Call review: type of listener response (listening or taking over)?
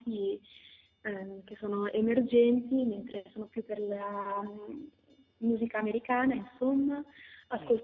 listening